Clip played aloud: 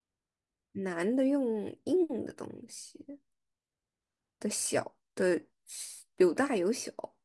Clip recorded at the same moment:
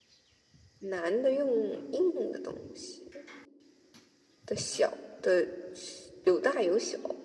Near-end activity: none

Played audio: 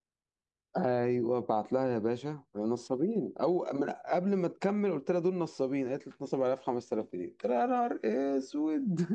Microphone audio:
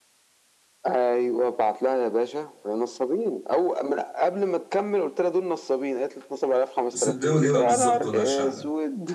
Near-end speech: present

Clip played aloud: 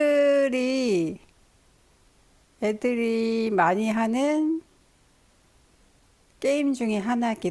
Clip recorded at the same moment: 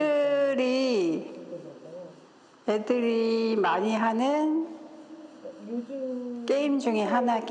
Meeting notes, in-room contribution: present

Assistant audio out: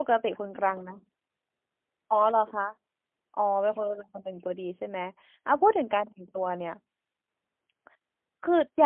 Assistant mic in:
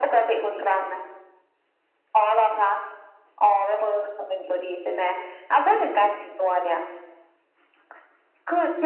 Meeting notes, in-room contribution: none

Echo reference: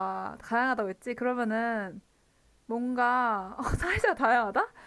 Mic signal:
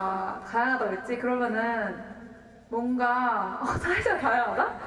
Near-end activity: none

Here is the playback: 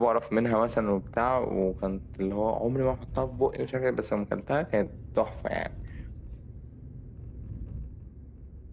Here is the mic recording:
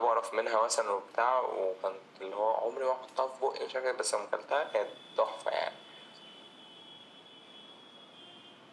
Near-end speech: none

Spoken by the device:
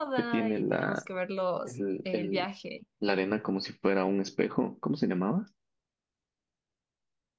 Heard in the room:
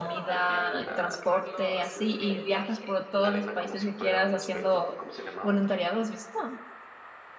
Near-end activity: present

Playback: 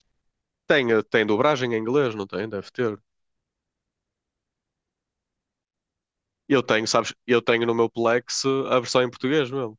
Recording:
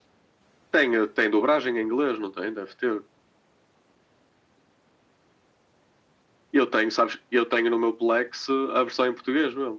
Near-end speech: none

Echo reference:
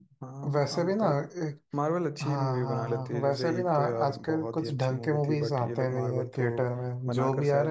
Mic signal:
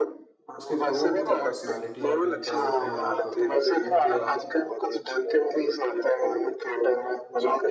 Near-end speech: present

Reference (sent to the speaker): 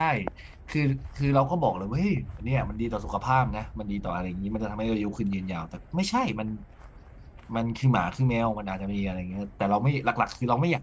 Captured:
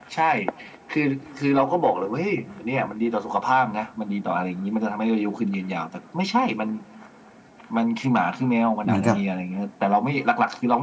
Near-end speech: present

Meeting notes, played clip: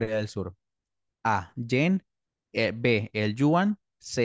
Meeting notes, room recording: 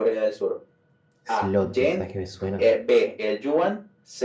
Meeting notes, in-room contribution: present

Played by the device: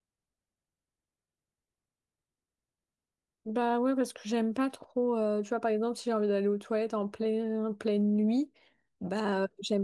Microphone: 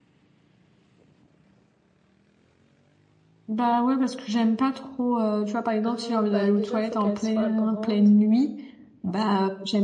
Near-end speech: present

